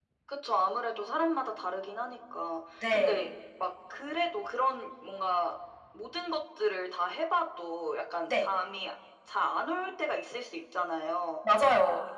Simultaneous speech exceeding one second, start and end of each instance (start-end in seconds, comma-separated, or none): none